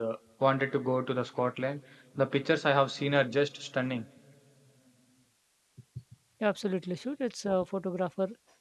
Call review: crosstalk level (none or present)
none